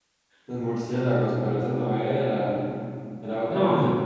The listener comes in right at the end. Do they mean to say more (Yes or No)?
No